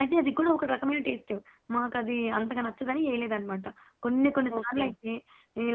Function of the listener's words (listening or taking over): listening